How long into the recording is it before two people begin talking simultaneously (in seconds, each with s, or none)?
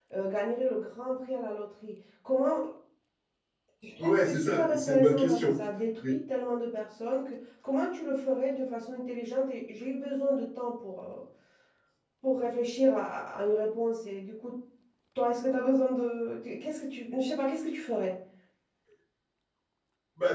4.0 s